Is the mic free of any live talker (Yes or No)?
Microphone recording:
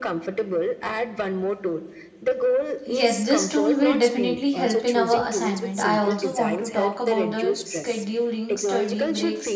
No